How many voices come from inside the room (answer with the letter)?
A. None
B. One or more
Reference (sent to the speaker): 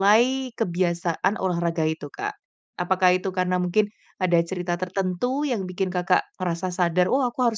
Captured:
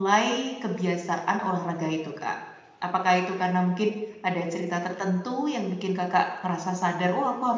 A